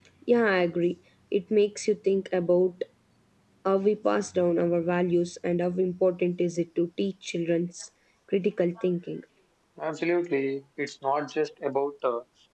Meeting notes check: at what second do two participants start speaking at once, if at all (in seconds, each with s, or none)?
none